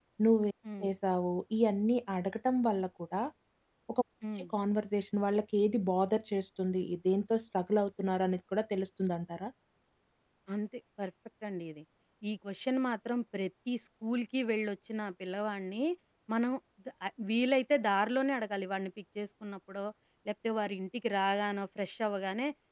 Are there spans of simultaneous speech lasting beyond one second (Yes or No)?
No